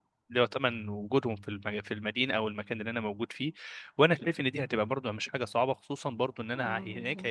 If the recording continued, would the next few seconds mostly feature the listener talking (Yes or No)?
No